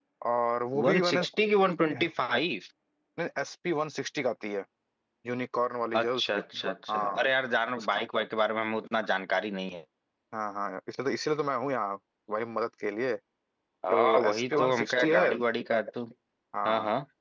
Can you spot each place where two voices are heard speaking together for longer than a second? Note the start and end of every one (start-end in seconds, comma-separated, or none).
13.9-15.2